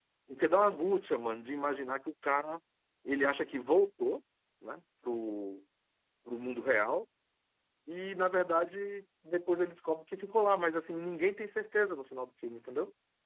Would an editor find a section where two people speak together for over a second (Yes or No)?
No